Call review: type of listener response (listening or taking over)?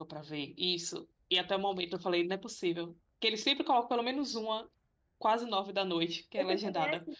taking over